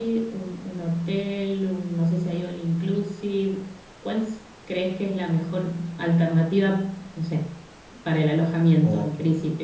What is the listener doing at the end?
taking over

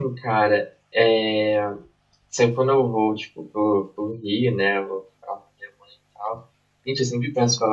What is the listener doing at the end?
listening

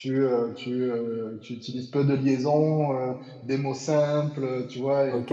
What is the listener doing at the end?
taking over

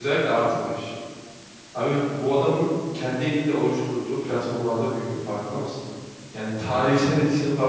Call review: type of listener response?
listening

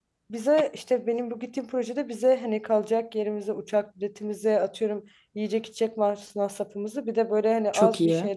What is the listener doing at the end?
listening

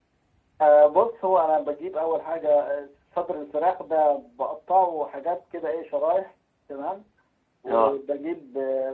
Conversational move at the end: listening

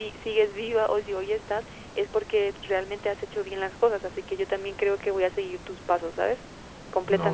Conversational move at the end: taking over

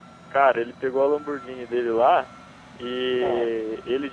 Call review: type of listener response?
listening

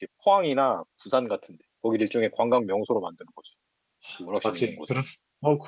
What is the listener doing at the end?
taking over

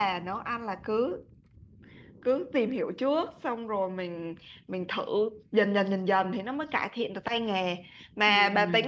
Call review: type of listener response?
listening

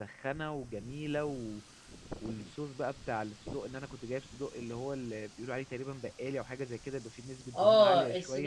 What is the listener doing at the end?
taking over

